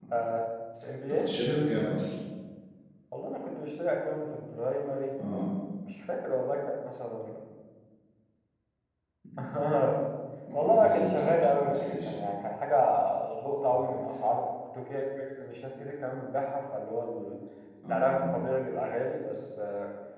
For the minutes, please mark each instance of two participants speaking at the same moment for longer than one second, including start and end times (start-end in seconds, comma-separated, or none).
10.5-12.1